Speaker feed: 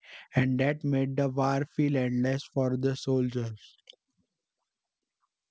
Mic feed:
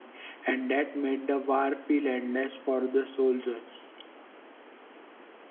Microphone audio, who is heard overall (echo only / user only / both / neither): echo only